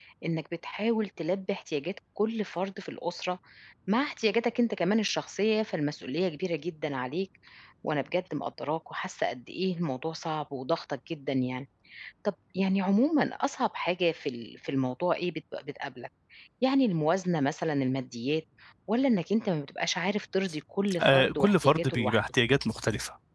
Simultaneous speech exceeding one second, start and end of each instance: 21.0-22.2

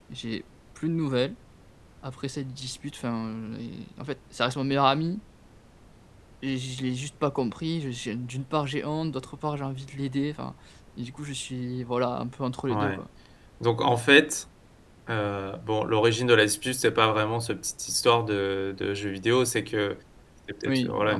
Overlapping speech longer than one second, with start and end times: none

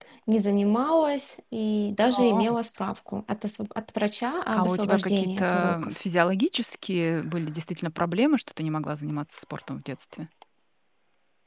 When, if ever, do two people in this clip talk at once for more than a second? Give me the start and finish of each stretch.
4.5-6.0

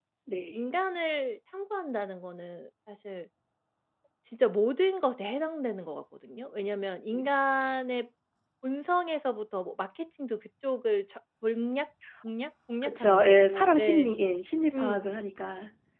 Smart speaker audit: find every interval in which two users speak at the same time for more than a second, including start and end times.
12.8-14.1

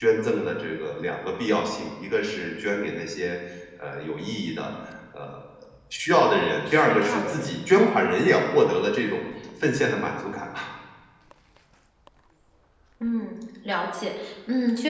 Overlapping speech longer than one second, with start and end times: 6.7-8.0

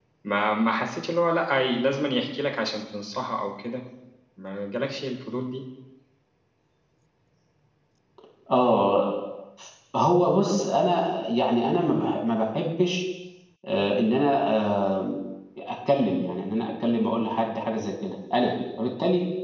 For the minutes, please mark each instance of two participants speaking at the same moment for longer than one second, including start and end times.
none

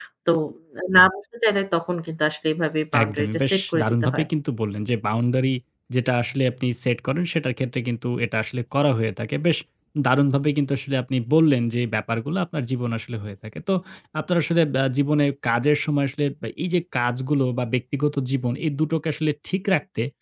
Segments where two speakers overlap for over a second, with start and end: 3.0-4.2

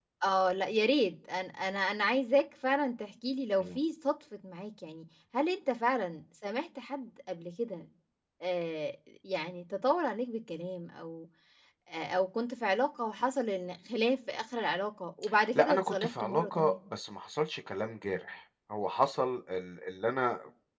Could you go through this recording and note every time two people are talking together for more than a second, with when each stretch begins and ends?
15.6-16.8

